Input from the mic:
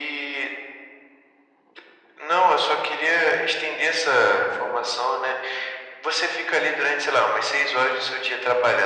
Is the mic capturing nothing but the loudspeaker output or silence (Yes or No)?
Yes